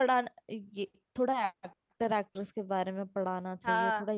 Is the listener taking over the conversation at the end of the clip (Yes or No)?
No